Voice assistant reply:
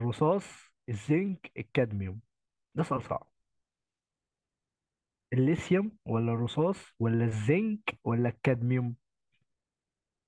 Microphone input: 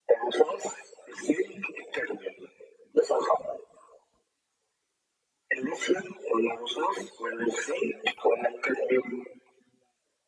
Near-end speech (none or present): none